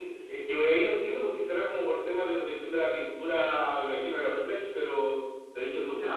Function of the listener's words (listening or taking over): taking over